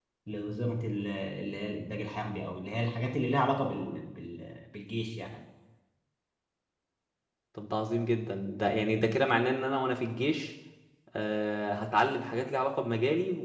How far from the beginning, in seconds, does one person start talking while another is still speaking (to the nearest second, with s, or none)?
none